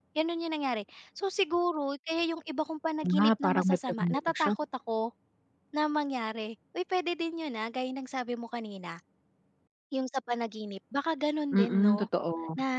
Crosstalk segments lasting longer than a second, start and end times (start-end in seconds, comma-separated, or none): 3.2-4.5